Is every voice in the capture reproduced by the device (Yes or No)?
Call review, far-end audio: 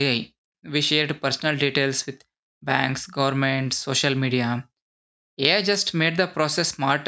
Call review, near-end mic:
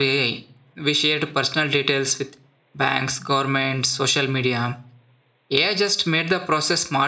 Yes